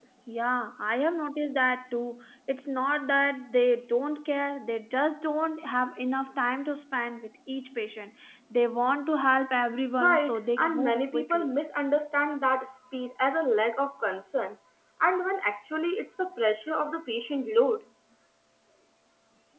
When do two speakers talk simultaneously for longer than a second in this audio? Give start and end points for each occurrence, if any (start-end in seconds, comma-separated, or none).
10.0-11.5